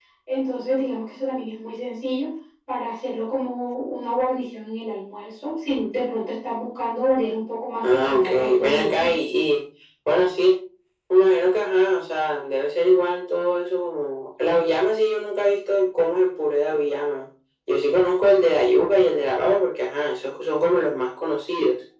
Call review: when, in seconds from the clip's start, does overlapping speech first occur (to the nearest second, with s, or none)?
8 s